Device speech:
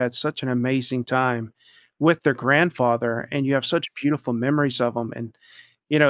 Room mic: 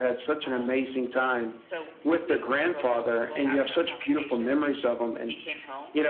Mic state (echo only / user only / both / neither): both